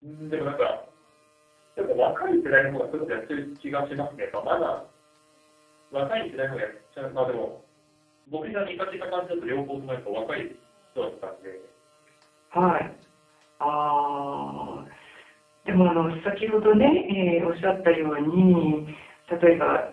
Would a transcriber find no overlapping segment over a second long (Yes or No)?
Yes